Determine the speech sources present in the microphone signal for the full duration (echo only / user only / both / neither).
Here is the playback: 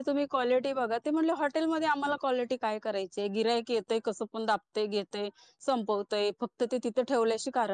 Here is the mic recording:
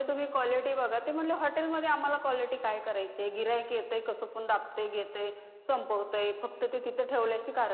echo only